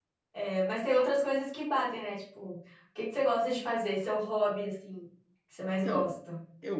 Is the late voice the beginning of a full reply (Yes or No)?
Yes